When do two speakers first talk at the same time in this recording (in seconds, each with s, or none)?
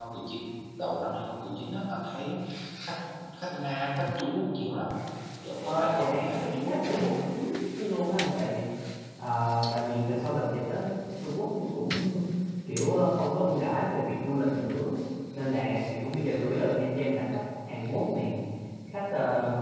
5.6 s